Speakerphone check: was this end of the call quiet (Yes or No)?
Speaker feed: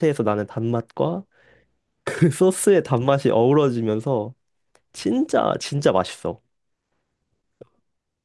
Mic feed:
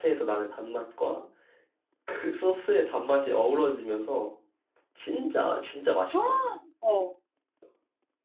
No